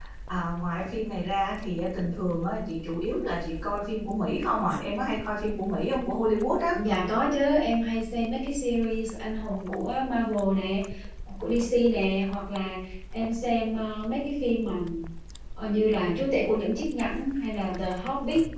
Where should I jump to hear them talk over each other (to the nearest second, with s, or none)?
none